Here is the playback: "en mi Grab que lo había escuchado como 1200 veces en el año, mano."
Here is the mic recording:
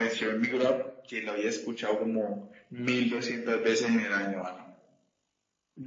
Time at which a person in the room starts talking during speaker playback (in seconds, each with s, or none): none